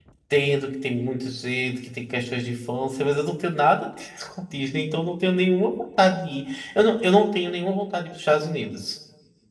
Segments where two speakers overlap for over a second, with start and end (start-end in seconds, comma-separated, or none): none